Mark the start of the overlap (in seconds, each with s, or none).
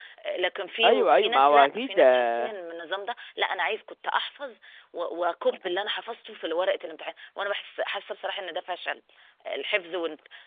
0.8 s